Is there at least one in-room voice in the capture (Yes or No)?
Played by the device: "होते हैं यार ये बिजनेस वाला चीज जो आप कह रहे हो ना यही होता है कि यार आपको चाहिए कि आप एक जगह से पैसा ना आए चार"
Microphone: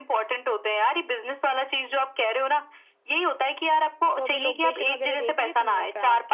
Yes